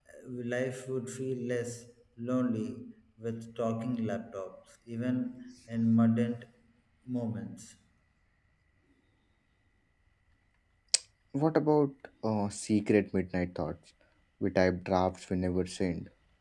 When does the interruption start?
none

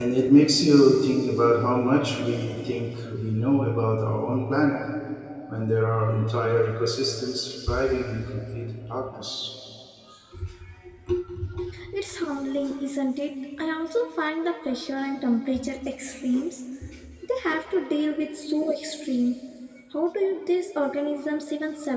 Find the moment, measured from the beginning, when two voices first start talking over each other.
none

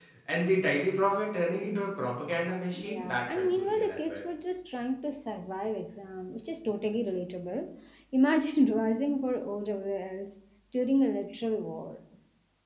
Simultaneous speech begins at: 2.7 s

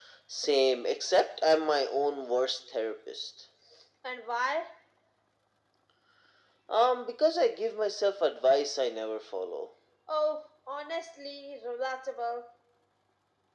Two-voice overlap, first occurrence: none

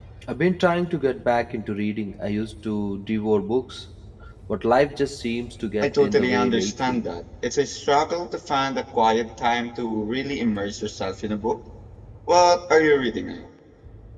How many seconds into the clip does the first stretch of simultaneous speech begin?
5.8 s

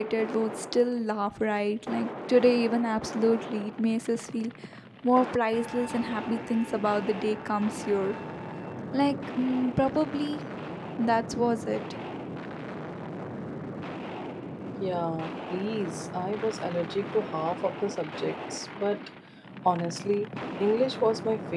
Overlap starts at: none

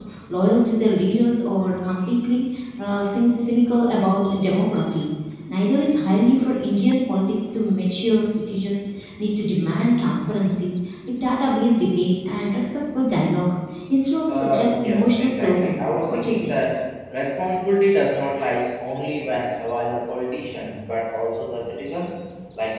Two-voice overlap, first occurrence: 14.3 s

